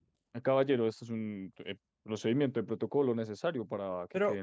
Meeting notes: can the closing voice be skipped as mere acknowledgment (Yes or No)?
No